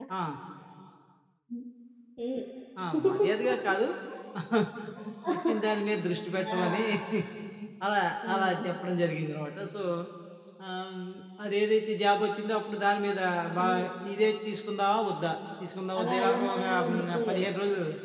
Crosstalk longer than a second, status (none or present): present